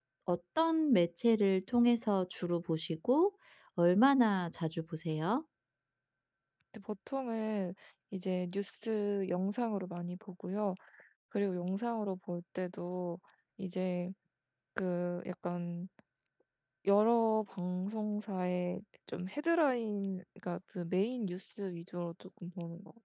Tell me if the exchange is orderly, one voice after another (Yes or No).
Yes